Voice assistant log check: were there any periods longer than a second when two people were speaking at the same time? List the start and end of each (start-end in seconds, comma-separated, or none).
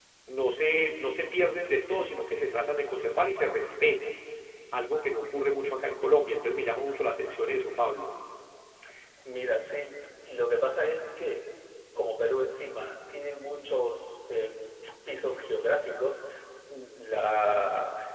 none